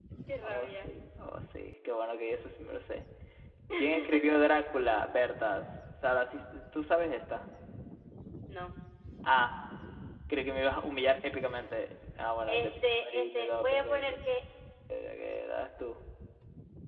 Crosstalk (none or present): present